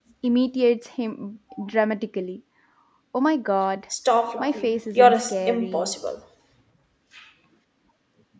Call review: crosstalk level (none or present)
present